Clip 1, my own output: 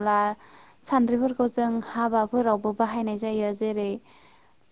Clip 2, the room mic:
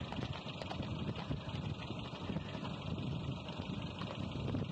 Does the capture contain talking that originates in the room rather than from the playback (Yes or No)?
No